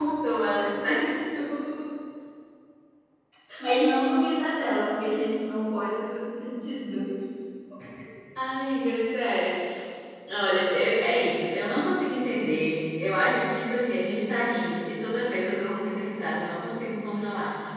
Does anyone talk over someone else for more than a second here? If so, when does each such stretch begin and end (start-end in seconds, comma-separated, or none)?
none